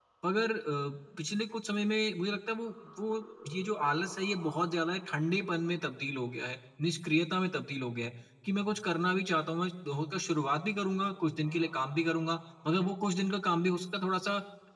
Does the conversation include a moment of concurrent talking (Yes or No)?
No